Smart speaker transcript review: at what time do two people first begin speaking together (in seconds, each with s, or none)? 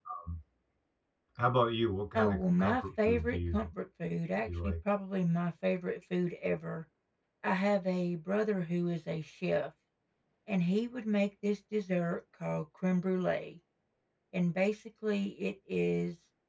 2.1 s